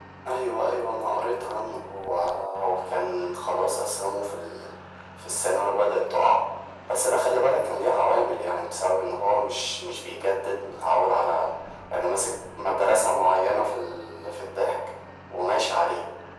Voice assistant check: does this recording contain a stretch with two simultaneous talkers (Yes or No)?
No